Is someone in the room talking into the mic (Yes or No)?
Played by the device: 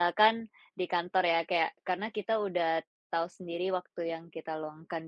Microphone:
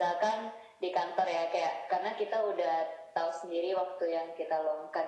No